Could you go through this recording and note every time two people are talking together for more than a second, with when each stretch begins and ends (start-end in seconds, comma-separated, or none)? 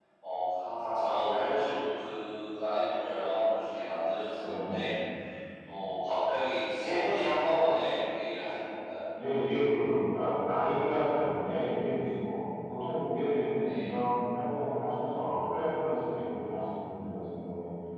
none